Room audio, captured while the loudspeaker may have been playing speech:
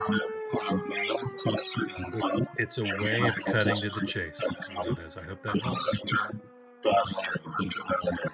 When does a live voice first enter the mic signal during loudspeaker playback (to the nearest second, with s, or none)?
2 s